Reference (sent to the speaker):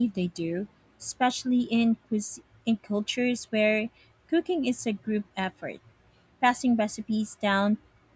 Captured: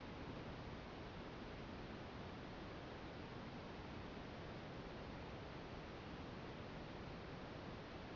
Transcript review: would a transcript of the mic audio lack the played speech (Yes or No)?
Yes